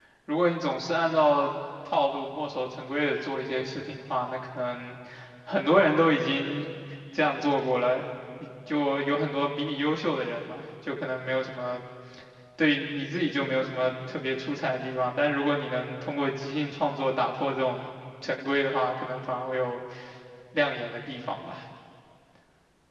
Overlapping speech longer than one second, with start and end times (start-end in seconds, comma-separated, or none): none